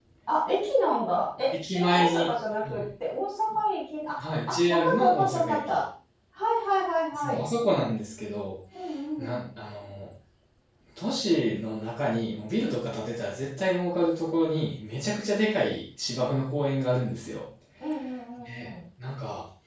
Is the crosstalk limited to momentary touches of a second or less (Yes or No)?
No